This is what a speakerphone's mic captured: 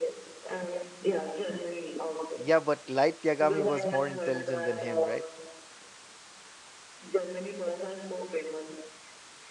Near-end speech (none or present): present